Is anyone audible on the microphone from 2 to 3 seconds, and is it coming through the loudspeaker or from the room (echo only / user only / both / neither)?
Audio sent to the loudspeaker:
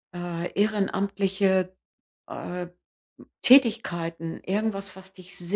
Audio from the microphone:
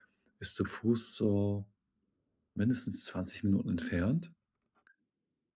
user only